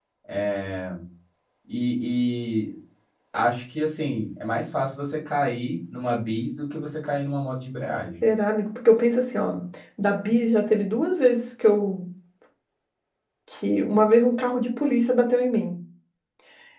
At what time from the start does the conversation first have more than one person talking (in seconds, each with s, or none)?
none